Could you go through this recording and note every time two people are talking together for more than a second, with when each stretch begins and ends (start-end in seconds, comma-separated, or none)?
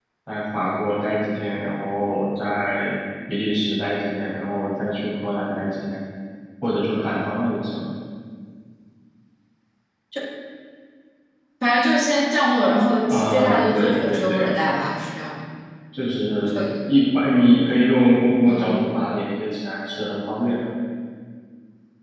13.1-14.5